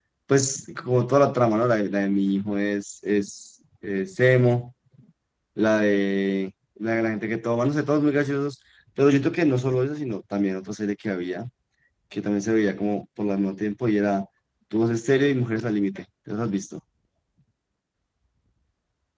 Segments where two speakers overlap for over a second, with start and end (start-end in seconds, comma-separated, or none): none